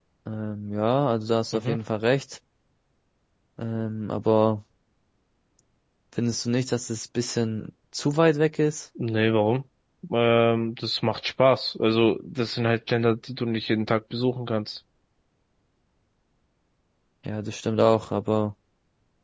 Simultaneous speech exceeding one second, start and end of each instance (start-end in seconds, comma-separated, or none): none